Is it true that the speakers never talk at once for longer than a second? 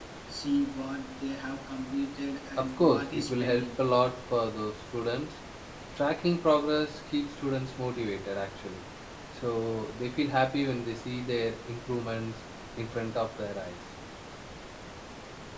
No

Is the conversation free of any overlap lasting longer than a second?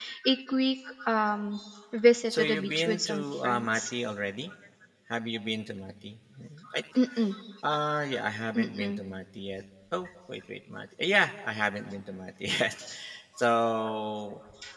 No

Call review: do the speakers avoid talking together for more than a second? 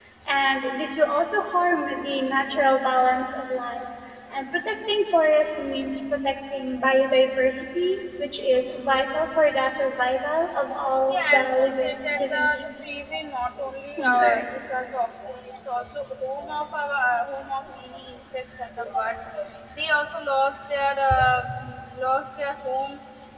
No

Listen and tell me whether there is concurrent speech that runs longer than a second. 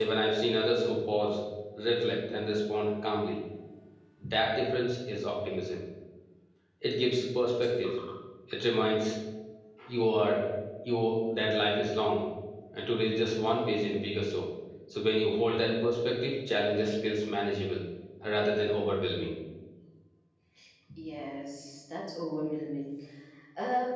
No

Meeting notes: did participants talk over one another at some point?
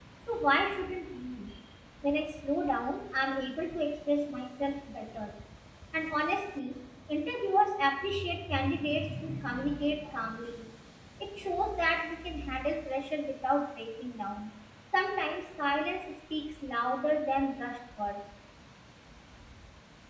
No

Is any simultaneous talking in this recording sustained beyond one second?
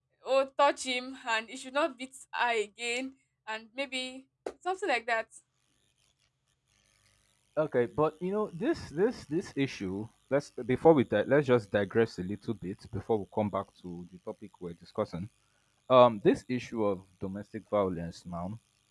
No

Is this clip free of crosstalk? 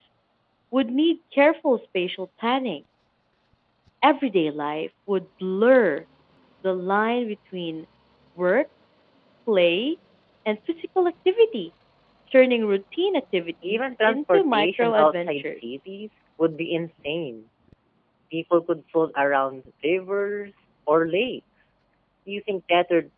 No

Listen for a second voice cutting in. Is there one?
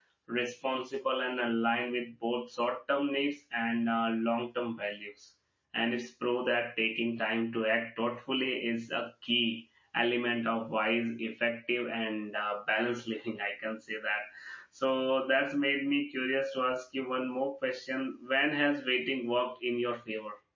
No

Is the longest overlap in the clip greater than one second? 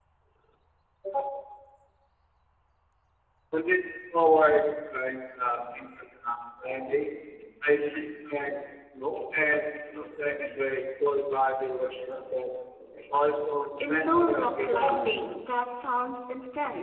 Yes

